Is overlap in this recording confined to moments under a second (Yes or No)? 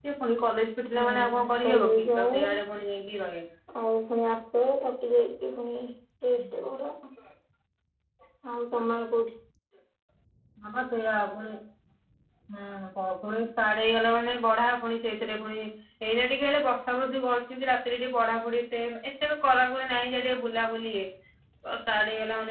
No